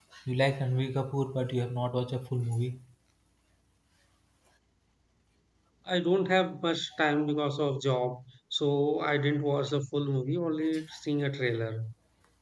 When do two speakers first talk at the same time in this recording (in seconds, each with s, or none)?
none